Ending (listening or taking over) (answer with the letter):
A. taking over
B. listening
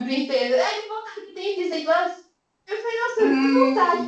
B